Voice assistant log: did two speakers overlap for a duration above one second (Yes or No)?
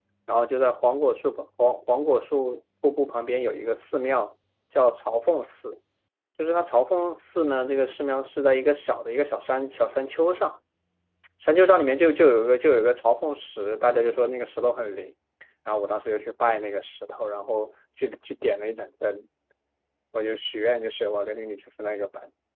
No